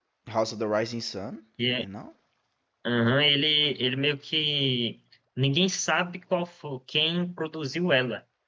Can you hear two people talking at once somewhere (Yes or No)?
No